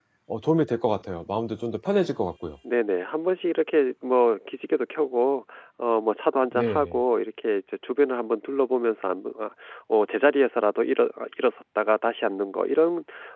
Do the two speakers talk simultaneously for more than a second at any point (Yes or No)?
No